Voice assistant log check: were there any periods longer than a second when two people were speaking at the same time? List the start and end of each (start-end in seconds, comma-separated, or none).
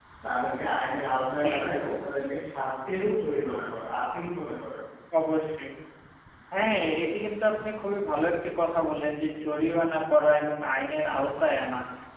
none